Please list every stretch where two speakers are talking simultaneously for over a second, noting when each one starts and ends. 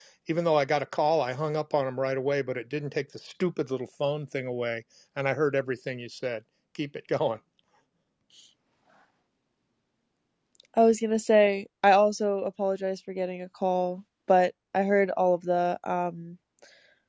none

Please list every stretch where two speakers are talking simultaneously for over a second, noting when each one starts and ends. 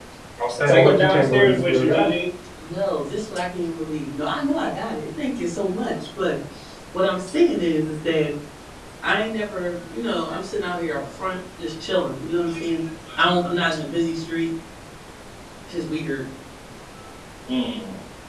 0.7-2.1

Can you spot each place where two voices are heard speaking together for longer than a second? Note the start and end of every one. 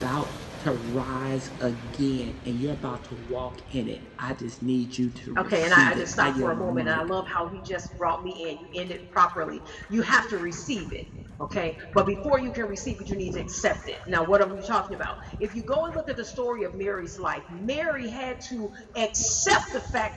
5.4-7.0

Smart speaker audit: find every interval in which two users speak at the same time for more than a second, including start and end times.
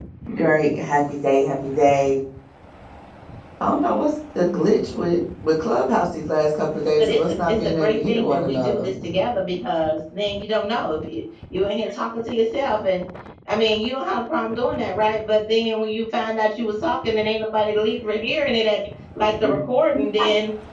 7.0-8.9

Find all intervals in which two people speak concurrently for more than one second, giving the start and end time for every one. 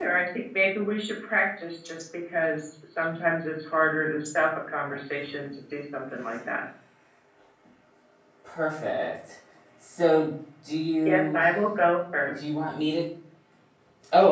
none

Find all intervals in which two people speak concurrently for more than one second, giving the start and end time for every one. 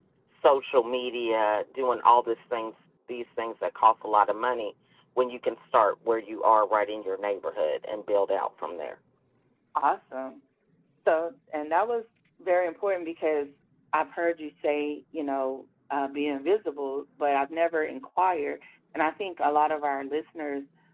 none

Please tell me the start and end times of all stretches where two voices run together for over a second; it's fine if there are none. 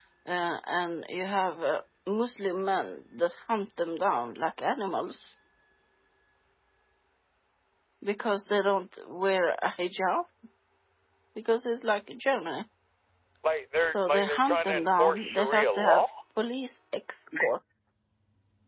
13.9-16.0

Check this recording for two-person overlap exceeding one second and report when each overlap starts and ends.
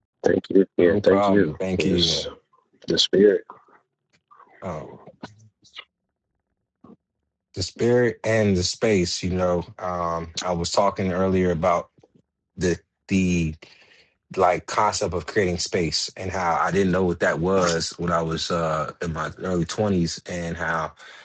0.8-2.2

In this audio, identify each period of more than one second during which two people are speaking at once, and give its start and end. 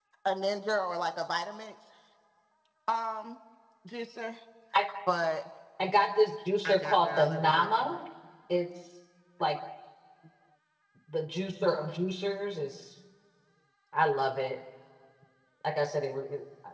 6.6-8.0

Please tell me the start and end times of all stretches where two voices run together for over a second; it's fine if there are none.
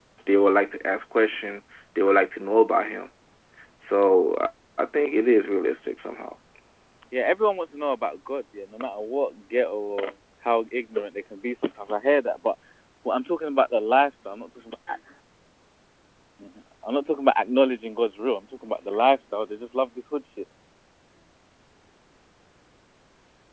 none

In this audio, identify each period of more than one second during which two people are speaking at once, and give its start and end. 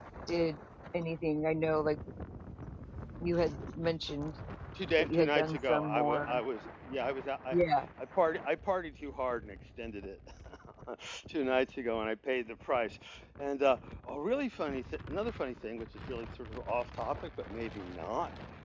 5.0-6.2

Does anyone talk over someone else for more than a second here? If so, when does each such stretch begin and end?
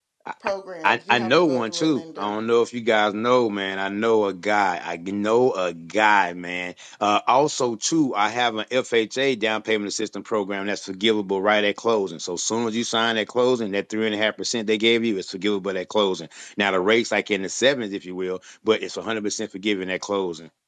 0.8-2.4

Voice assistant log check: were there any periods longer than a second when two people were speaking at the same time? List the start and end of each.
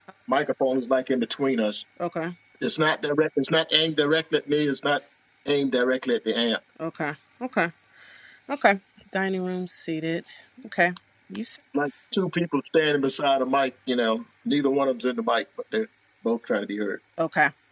none

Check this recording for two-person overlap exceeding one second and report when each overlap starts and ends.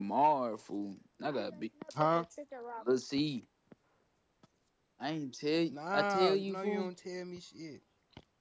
5.7-6.9

